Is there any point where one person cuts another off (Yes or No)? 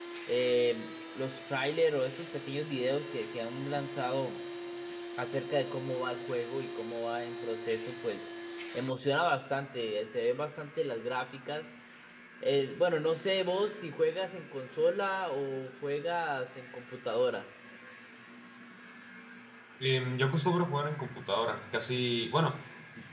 No